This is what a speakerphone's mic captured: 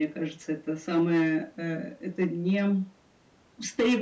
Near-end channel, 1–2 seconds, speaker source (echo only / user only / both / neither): echo only